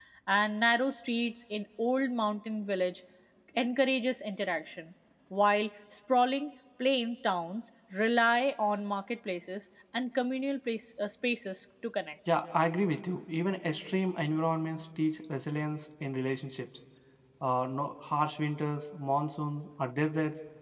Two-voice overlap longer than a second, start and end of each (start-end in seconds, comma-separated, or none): none